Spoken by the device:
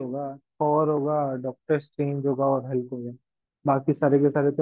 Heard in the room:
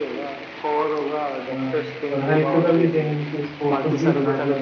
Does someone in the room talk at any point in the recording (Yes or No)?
Yes